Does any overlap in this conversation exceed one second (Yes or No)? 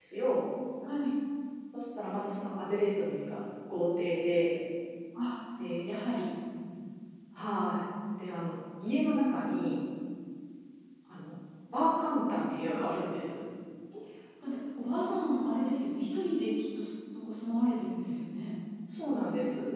No